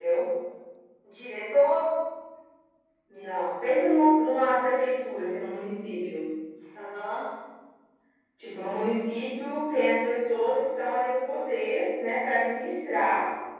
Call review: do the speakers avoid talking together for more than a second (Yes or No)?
Yes